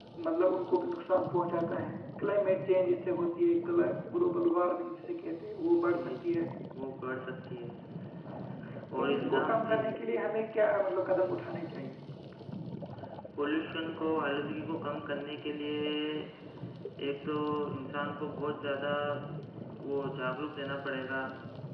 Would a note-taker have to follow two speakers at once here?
Yes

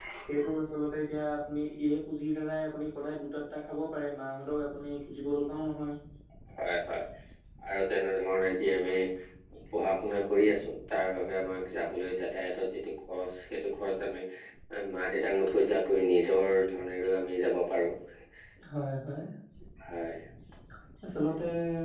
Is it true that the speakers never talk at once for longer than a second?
Yes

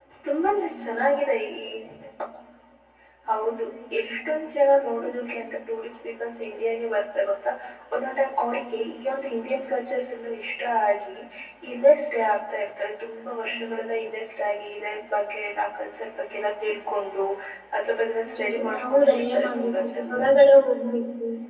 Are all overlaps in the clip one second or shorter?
No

